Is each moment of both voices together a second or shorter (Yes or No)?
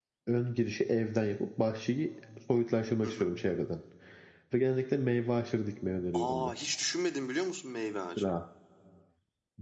Yes